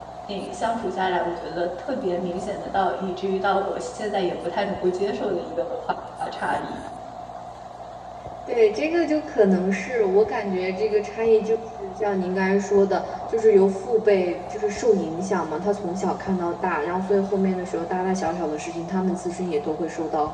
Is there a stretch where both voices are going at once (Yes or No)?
No